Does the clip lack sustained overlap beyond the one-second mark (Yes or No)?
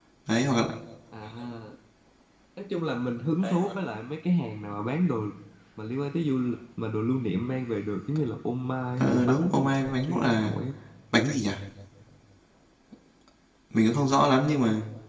No